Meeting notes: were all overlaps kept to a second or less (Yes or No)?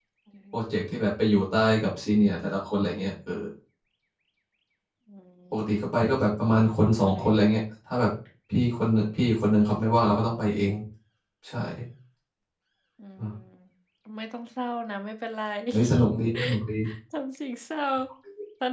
Yes